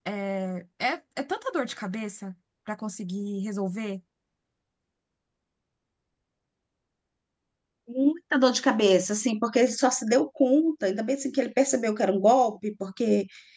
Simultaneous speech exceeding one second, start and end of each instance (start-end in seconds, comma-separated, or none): none